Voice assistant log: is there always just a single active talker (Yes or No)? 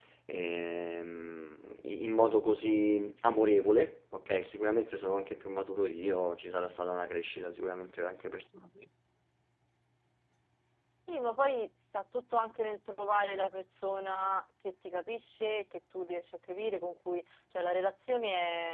Yes